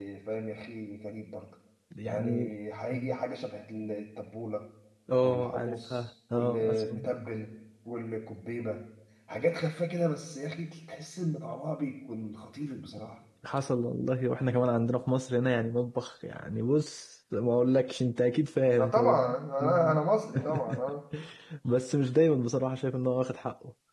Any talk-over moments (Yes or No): Yes